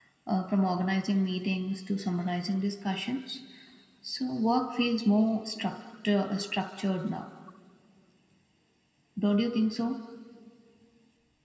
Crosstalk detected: No

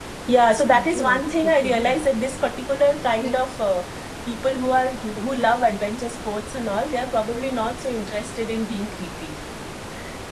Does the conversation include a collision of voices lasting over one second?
Yes, from 0.7 s

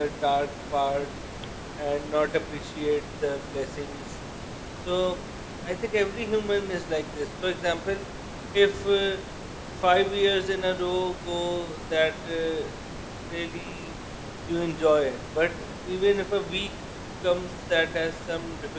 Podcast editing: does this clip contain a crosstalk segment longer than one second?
No

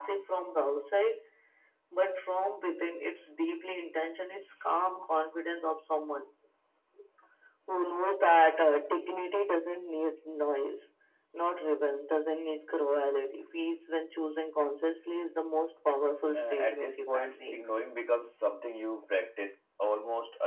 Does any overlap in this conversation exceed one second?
Yes, from 16.3 s

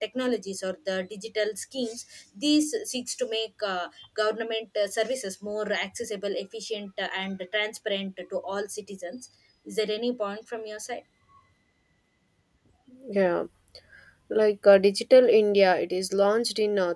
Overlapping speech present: No

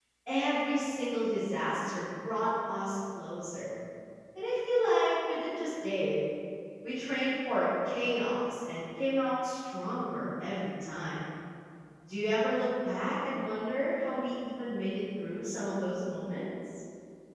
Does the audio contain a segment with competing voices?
No

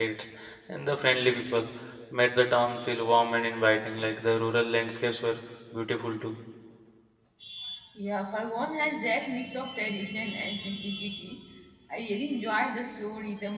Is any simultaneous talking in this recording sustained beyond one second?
No

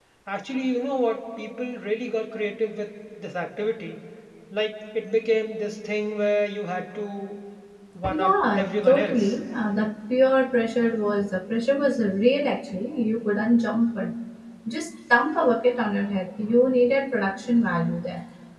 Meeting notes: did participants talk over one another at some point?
Yes, from 8.1 s

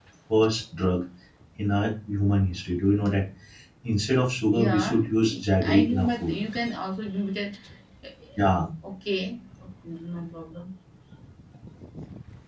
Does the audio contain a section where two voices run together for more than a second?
Yes, from 4.5 s

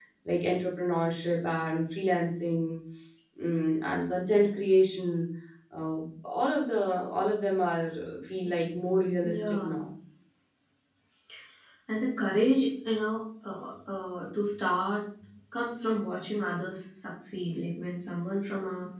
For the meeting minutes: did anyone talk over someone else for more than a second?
Yes, from 8.4 s

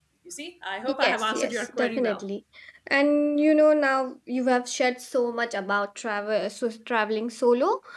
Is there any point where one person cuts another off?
Yes, from 1.0 s

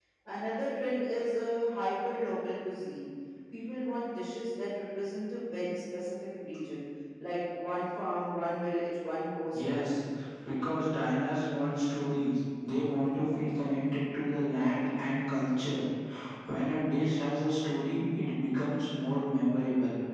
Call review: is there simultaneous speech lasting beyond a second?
No

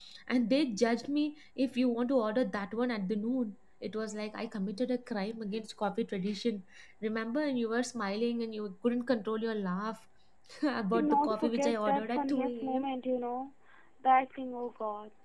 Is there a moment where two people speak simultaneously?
Yes, from 10.9 s

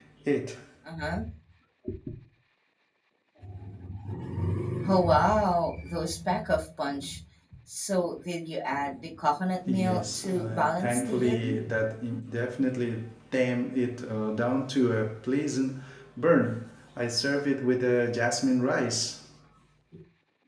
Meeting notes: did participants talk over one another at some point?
Yes, from 9.7 s

